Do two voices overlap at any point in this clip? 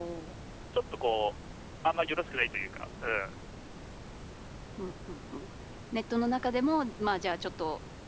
No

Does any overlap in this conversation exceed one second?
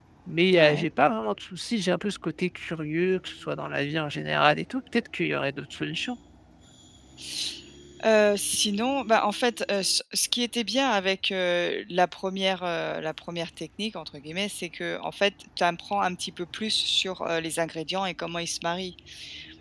No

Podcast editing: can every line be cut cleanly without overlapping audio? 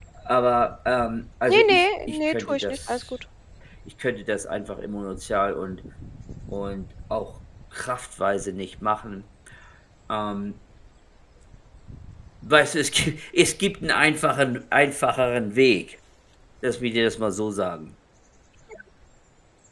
No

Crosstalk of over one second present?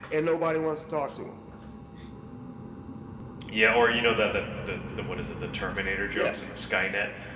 No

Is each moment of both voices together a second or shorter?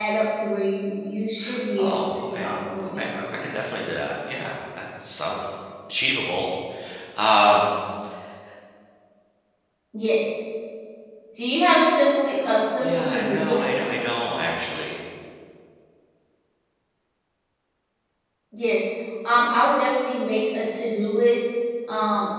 No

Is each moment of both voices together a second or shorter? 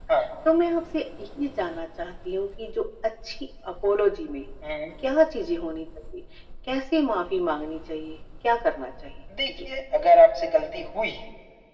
Yes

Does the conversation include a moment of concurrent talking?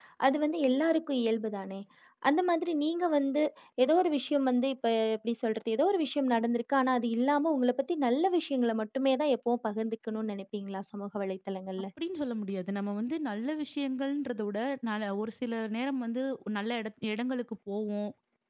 No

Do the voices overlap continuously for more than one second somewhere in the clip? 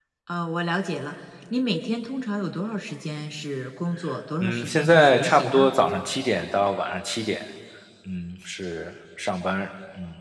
Yes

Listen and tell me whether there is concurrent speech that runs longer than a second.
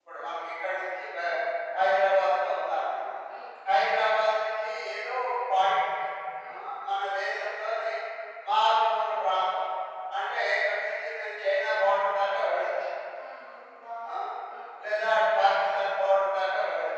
No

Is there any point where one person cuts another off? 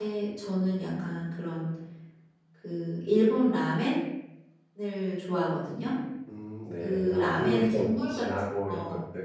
Yes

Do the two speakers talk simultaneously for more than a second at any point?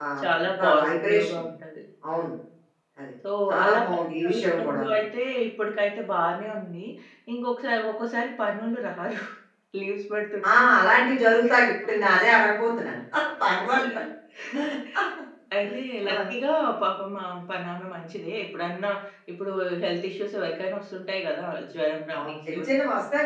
Yes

